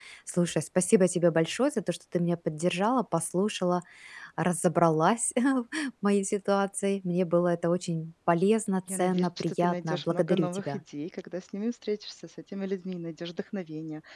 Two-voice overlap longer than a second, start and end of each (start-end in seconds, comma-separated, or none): 8.9-10.8